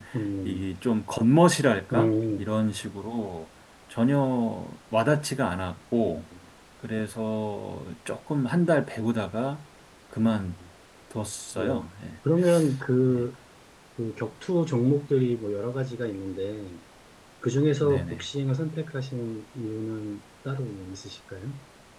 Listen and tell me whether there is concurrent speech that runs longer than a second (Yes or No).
No